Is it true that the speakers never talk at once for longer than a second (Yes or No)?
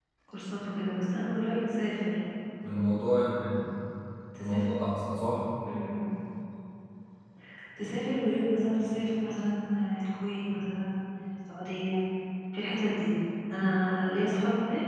Yes